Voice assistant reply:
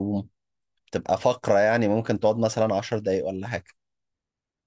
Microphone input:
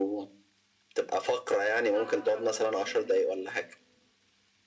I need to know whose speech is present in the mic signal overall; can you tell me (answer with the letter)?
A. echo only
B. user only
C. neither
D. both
D